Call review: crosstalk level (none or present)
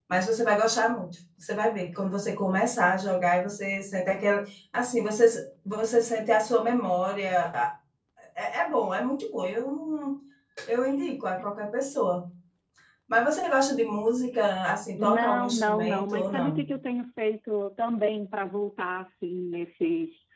present